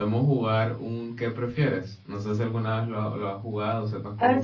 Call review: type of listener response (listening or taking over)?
taking over